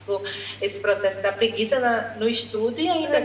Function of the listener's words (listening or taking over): taking over